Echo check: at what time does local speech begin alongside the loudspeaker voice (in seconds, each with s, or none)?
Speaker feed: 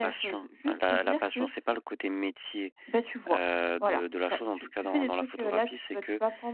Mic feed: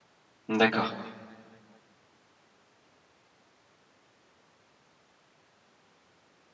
0.5 s